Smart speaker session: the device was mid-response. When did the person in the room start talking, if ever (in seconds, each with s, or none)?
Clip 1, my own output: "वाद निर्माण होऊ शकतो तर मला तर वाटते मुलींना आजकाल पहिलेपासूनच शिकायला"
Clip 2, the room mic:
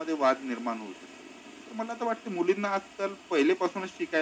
none